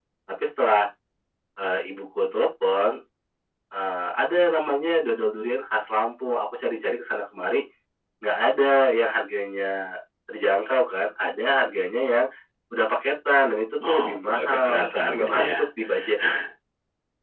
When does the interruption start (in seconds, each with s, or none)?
13.8 s